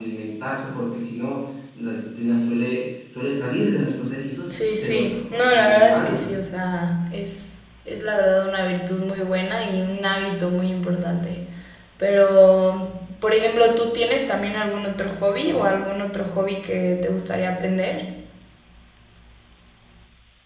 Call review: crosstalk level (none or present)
present